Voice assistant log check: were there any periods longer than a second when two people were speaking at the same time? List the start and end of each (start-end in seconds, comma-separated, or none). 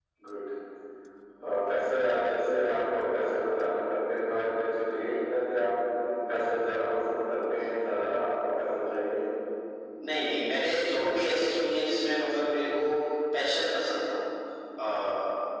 none